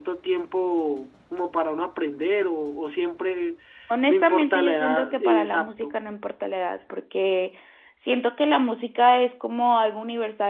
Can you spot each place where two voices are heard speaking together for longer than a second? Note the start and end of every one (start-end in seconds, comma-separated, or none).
4.1-6.0